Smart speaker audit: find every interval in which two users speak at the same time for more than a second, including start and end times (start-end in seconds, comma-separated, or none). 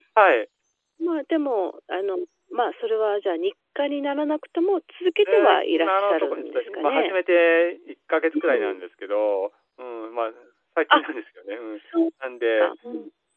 5.3-7.2